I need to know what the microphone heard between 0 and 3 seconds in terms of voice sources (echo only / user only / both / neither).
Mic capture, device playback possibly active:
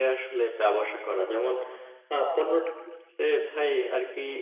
echo only